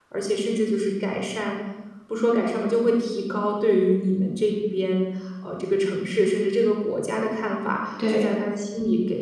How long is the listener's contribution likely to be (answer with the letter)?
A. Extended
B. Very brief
B